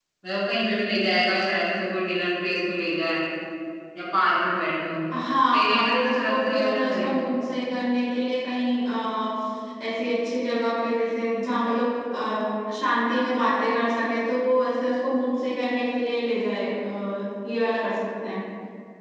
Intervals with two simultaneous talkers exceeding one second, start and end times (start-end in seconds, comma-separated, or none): 5.5-7.3